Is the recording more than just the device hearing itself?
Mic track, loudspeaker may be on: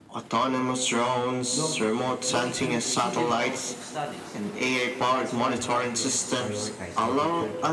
Yes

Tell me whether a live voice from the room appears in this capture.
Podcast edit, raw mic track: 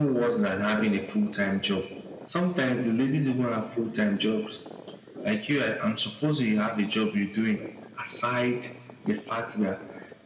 No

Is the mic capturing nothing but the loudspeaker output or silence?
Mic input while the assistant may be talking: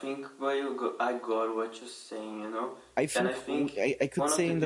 No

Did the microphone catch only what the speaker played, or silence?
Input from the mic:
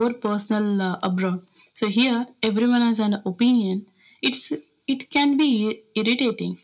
Yes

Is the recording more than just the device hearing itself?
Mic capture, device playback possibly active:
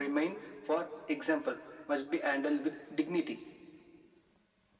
No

